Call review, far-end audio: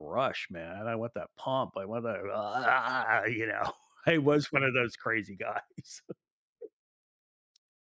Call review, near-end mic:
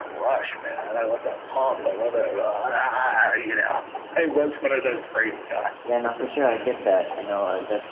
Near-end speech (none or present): present